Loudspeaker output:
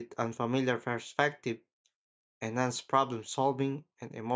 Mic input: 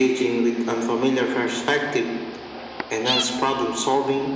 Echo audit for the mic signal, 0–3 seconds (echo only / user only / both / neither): echo only